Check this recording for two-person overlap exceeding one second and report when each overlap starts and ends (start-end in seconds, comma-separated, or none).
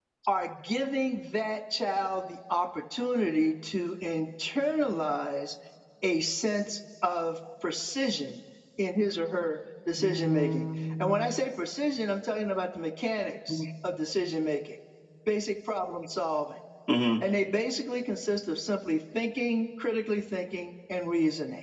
10.0-11.3